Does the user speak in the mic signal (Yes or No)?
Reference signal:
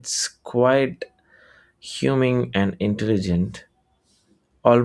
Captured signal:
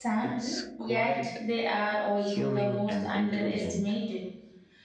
Yes